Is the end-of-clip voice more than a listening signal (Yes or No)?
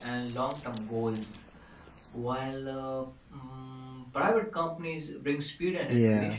Yes